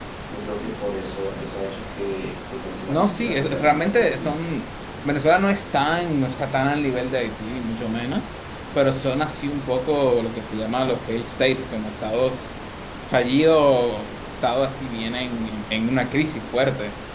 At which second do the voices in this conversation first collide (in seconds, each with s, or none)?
2.9 s